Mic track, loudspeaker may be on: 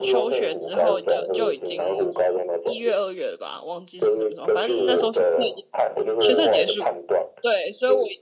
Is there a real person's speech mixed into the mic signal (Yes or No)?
Yes